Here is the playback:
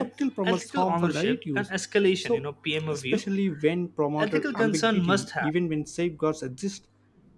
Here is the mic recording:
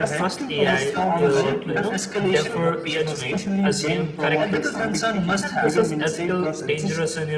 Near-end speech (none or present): present